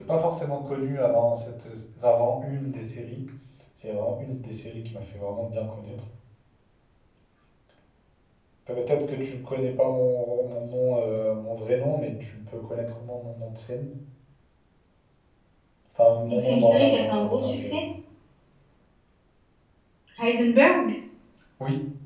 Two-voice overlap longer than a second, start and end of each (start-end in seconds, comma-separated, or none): 16.2-17.8